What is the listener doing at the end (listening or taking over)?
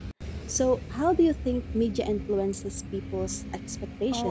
taking over